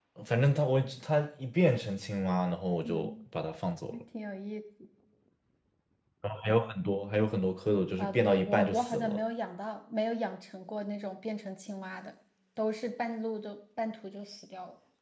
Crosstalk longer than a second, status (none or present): present